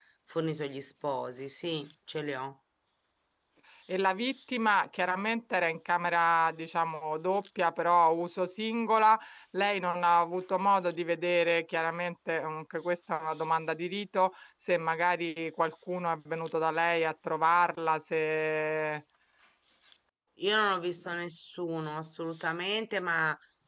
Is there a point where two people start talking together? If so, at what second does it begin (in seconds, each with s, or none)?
none